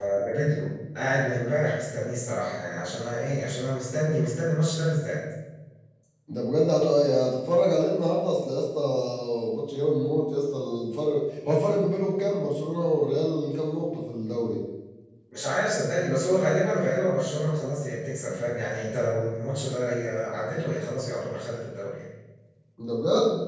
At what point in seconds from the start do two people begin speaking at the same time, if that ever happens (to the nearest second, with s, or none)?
none